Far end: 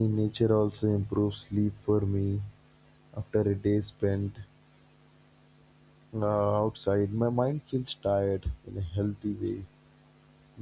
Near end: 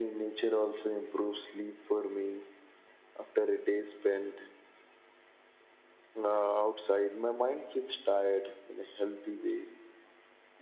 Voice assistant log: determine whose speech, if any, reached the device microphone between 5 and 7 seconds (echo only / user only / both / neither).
echo only